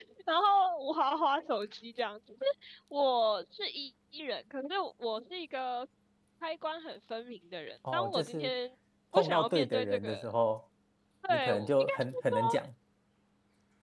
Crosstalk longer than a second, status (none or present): present